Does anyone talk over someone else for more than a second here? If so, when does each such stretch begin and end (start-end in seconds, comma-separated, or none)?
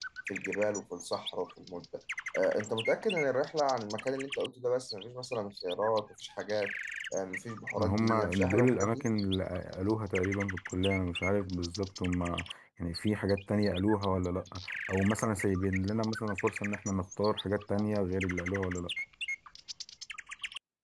7.8-9.0